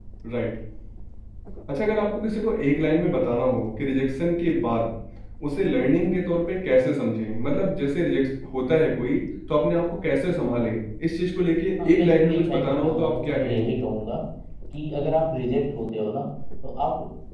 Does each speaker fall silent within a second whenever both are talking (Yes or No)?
No